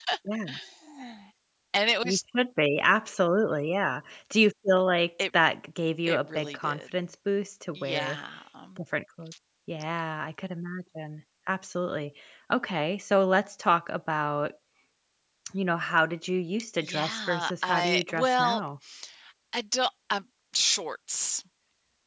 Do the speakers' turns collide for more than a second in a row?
Yes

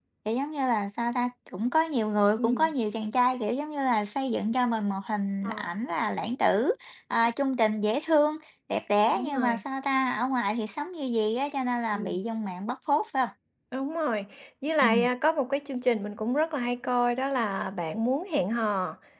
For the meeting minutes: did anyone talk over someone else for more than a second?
No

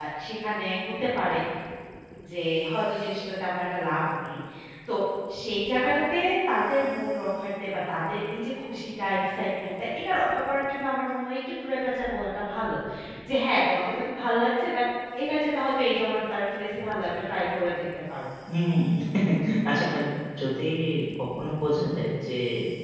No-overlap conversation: Yes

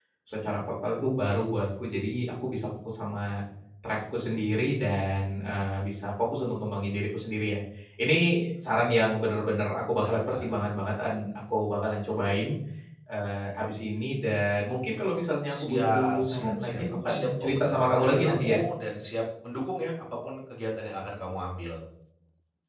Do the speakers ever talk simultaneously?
Yes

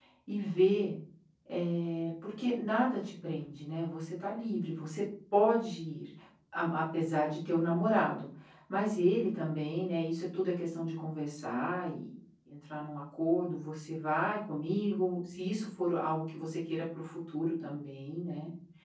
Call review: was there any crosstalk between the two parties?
No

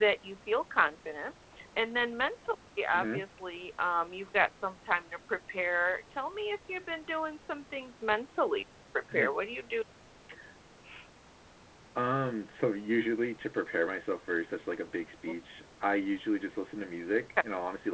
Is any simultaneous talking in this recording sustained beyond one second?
No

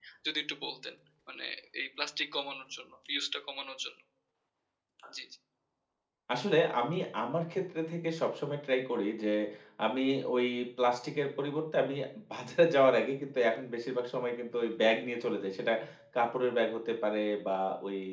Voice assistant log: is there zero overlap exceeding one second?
Yes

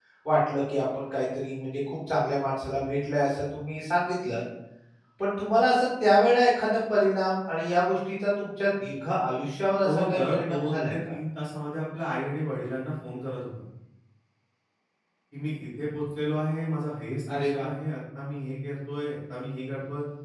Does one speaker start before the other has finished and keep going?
Yes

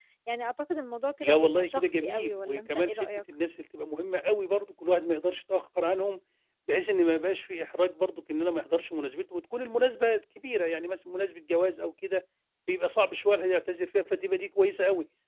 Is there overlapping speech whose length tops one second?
Yes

